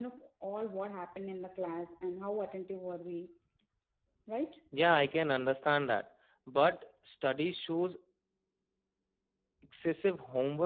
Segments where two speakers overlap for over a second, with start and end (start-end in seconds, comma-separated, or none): none